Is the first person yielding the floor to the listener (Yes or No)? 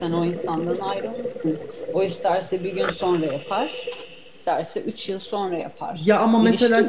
Yes